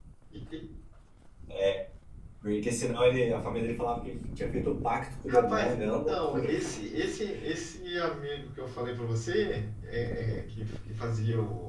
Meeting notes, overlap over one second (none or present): present